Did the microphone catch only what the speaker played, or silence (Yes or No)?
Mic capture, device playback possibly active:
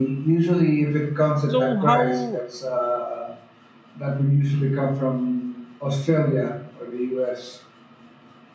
No